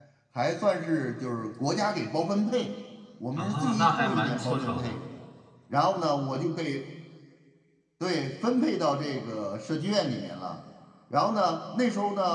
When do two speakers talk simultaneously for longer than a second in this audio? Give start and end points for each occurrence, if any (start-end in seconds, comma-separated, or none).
3.4-5.0